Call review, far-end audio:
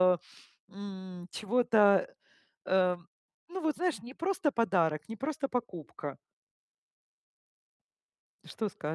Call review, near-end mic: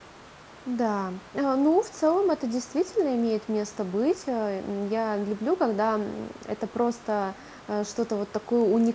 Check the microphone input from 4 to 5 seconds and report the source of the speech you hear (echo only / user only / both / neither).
user only